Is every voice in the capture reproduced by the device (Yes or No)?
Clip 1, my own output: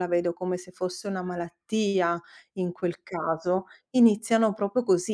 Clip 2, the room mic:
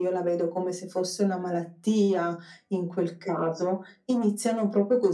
Yes